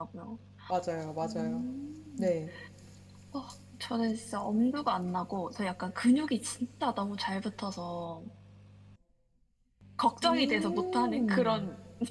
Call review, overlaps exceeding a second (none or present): present